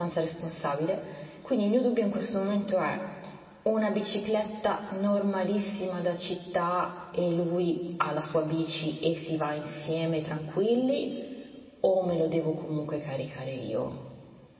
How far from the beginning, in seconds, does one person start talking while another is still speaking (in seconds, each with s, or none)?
none